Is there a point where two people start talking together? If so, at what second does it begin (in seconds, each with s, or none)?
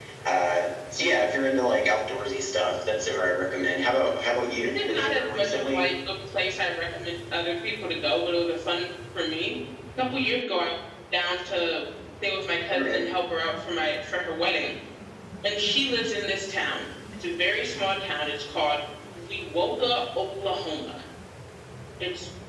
4.6 s